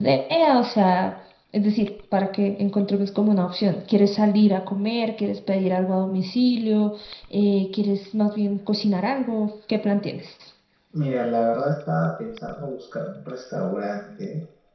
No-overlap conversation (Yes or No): Yes